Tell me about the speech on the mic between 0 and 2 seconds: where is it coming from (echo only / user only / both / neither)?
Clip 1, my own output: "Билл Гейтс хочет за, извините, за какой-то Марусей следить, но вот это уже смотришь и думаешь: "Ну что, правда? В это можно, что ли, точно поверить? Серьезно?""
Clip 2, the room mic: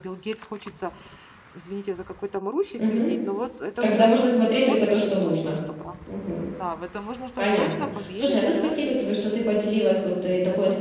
echo only